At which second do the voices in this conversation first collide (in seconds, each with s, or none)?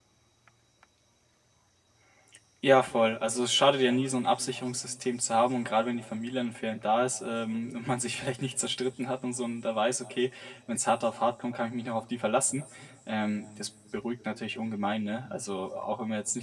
none